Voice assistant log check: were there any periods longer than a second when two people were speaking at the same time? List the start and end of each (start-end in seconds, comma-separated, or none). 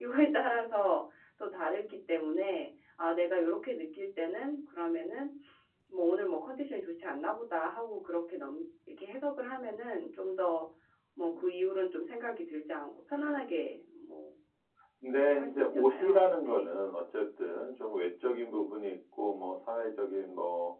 15.3-16.7